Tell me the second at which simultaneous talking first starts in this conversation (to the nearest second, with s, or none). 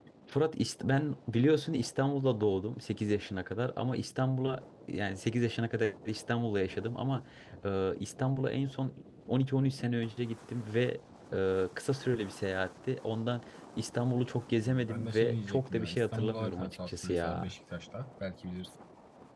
15 s